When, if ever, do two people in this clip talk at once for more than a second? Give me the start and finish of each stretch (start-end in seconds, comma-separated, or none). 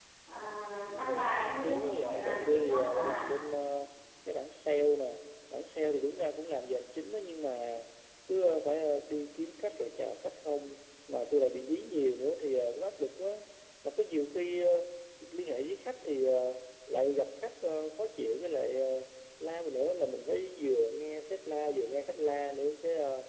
1.6-3.2